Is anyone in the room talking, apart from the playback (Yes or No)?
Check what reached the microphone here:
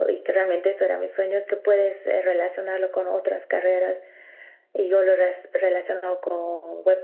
No